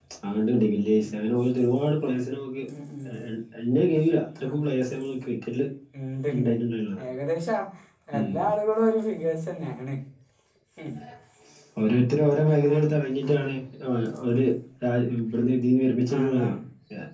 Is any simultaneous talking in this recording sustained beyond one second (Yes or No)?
No